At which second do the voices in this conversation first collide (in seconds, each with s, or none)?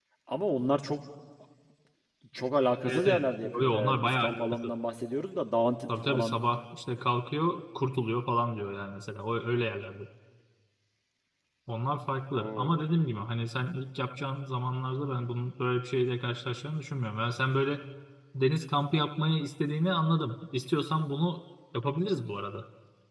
2.8 s